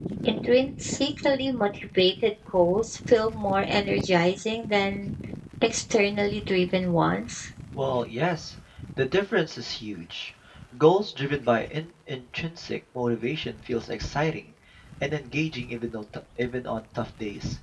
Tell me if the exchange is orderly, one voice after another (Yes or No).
Yes